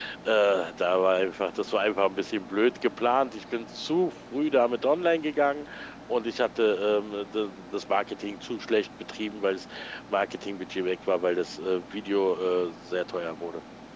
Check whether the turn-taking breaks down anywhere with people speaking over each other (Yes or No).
No